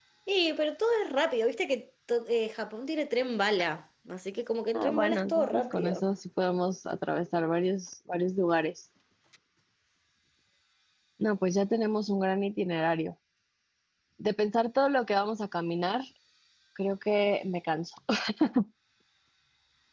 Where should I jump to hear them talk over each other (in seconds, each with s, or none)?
4.7 s